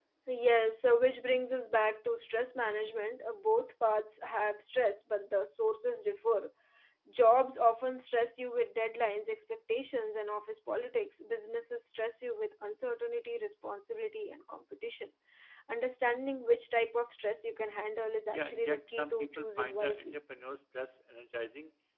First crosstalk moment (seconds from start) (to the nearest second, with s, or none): 18 s